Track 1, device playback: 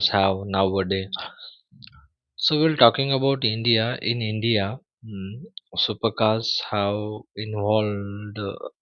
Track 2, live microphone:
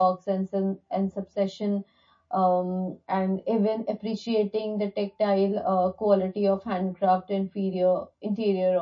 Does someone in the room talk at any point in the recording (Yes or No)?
Yes